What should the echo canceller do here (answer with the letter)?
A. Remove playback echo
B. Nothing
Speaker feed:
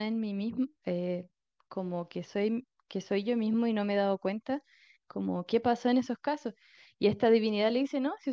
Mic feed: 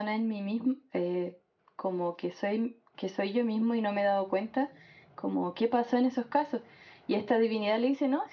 A